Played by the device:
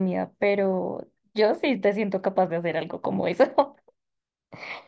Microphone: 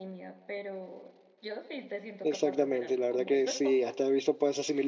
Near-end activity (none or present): present